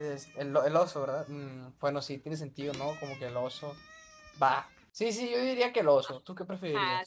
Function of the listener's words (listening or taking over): taking over